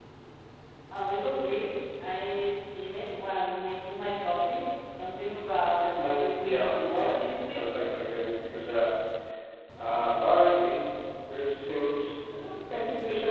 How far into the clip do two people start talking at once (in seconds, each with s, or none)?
5.9 s